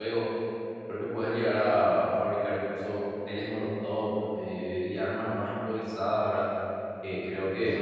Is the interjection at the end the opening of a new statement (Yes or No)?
No